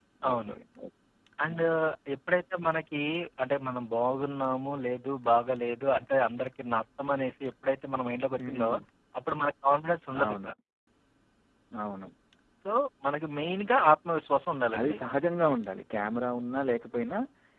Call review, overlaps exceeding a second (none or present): none